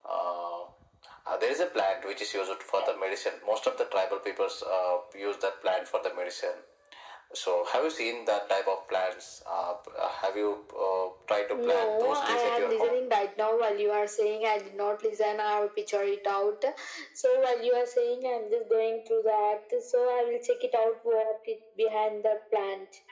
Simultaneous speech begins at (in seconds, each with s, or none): 11.5 s